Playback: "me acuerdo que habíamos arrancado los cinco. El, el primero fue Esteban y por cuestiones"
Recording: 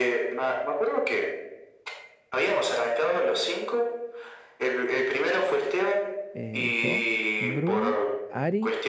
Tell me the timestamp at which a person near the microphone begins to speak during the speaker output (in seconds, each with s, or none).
6.3 s